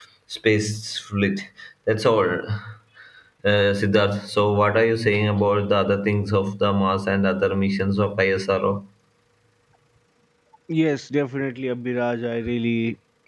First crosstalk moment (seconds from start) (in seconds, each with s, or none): none